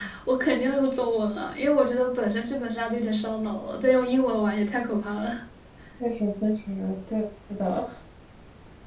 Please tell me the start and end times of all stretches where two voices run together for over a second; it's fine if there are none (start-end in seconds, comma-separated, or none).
none